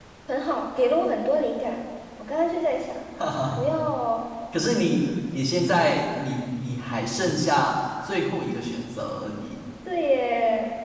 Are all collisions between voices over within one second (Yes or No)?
Yes